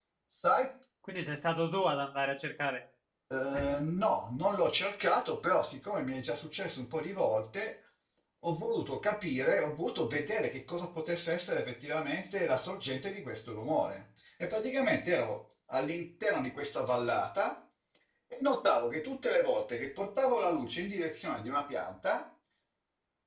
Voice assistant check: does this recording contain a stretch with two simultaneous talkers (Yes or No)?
No